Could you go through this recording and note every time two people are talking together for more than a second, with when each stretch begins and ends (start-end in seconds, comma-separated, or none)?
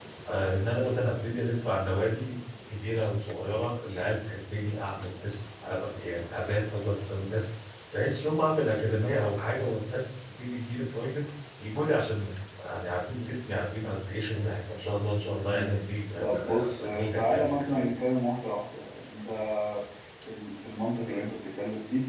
16.2-17.9